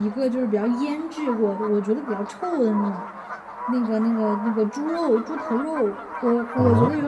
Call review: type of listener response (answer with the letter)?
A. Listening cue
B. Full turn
A